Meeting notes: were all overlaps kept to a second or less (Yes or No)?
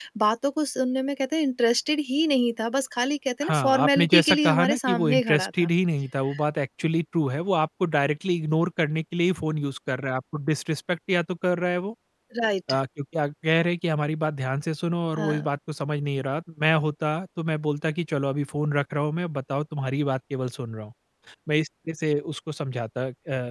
No